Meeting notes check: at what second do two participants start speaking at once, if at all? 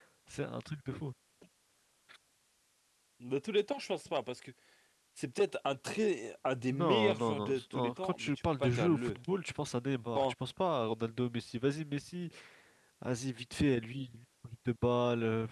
6.7 s

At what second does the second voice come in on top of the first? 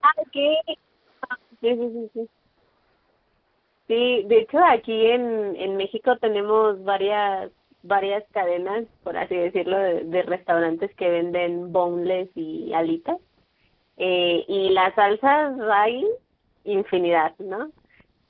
none

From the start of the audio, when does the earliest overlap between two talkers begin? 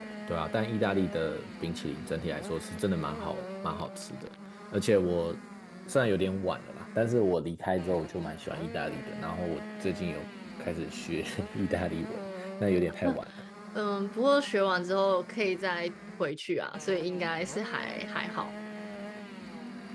none

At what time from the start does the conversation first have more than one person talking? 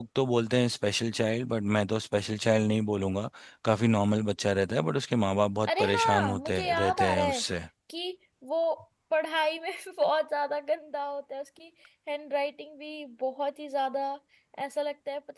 5.6 s

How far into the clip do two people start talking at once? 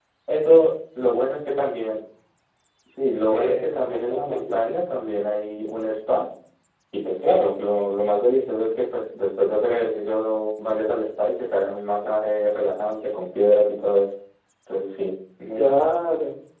3.3 s

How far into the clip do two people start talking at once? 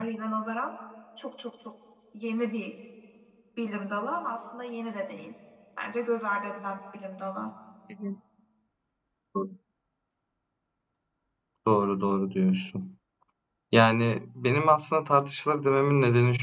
none

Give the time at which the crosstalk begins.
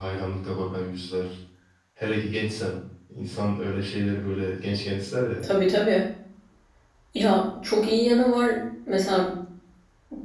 none

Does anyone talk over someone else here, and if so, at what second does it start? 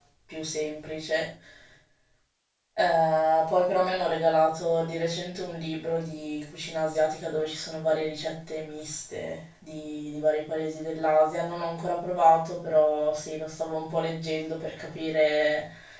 none

